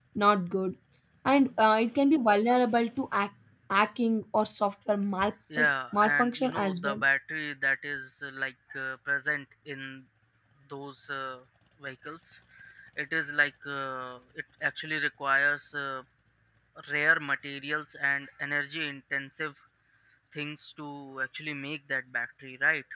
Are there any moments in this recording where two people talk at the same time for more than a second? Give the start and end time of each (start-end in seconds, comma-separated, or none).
5.6-7.0